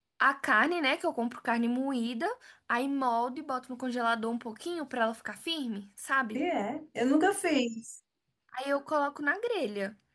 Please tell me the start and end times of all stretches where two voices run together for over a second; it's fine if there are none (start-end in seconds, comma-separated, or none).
none